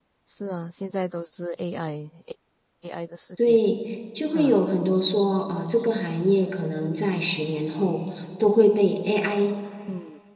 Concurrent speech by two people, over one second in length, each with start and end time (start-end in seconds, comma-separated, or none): none